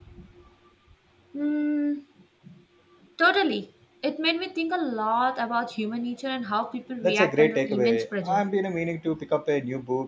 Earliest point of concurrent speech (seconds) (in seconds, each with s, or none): 7.0 s